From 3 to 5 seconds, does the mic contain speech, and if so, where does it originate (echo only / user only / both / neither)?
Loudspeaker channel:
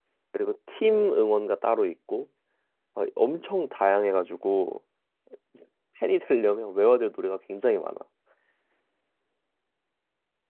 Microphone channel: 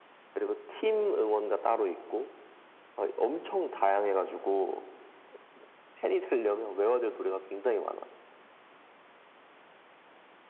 echo only